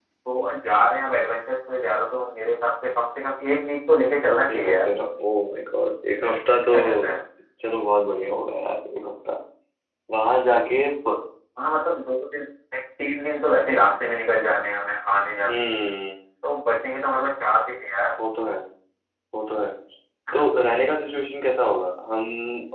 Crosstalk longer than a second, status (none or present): none